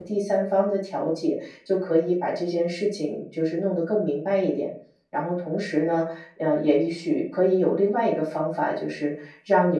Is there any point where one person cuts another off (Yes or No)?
No